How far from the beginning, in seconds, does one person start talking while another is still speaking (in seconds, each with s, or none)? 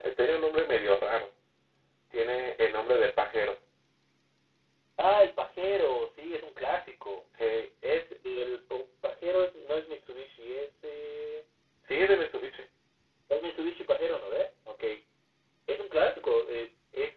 none